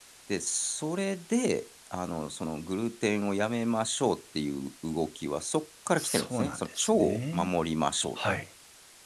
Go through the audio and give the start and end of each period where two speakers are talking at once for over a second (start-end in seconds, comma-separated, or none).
6.0-7.5